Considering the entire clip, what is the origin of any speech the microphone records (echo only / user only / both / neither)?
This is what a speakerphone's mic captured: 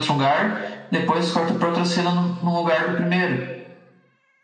echo only